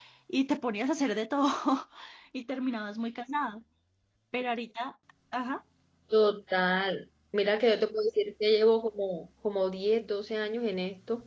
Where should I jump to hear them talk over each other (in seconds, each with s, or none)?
none